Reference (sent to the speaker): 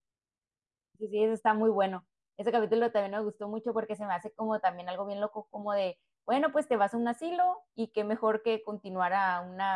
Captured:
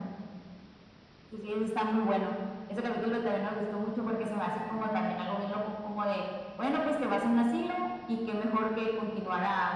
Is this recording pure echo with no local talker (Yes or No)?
Yes